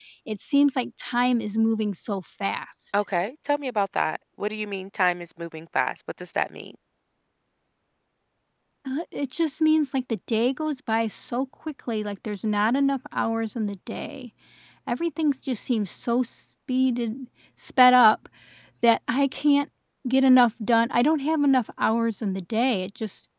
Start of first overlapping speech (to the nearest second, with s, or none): none